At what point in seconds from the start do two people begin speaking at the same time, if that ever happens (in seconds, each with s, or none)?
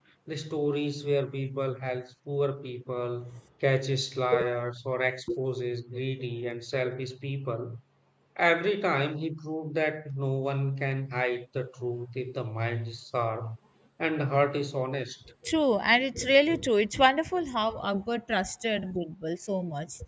none